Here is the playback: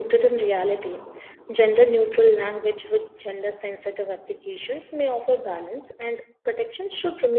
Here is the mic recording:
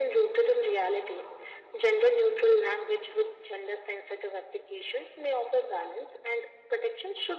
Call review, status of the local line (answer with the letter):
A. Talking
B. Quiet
B